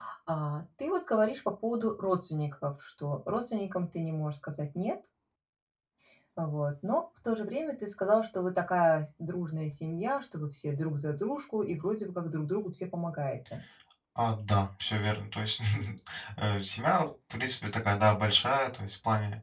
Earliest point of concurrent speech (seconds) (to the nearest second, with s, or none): none